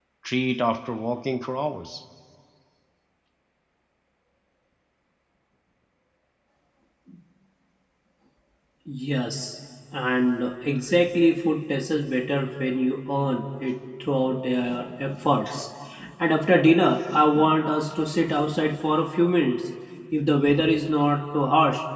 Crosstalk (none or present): none